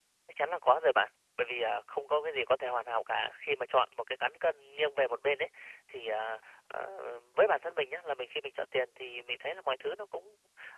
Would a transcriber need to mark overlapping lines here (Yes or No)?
No